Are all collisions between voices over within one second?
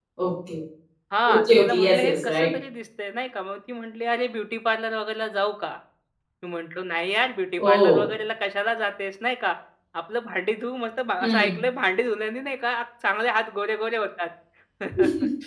No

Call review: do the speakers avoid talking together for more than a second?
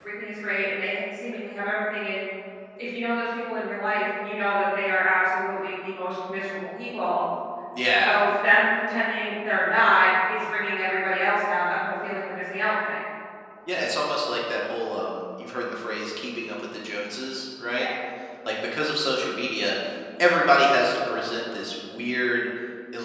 Yes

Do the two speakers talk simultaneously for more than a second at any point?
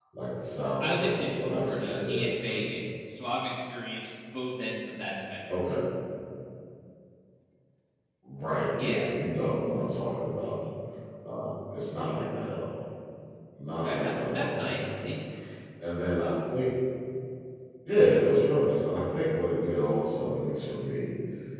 Yes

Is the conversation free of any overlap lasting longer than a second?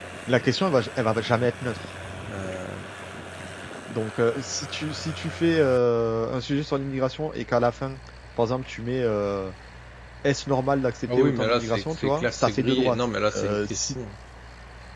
No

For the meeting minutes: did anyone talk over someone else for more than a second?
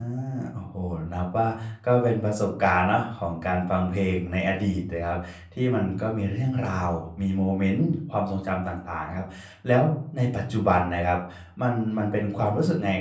No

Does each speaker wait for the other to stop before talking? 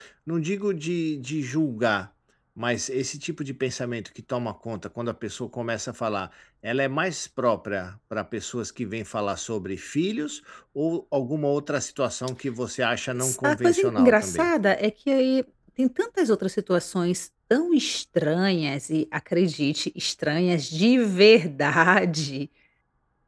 No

